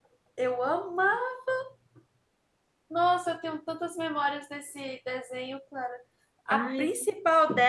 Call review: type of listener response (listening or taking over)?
listening